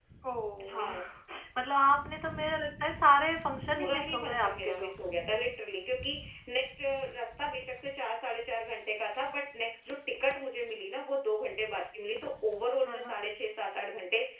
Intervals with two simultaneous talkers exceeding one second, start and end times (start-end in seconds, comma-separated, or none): 3.7-5.0